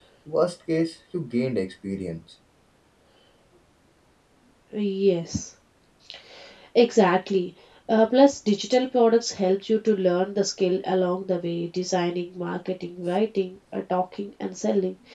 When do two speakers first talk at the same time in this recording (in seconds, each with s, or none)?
none